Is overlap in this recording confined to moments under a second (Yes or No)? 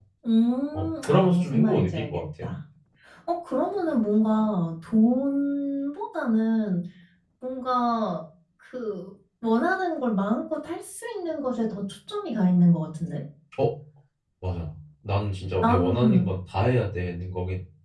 No